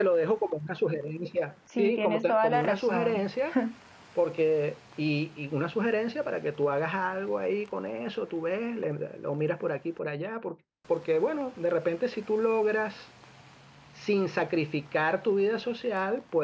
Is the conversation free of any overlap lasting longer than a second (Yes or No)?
No